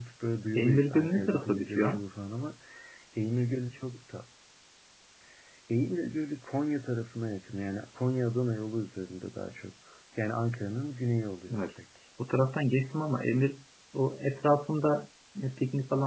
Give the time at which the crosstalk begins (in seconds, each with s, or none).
0.6 s